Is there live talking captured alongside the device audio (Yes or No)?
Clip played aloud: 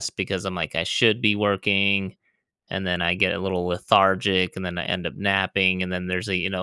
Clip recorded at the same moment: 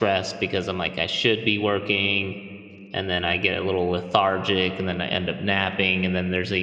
No